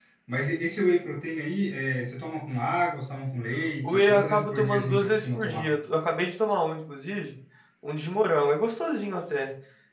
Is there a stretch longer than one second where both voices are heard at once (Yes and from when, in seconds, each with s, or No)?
Yes, from 3.8 s